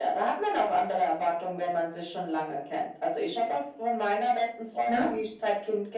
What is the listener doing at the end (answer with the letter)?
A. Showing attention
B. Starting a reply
A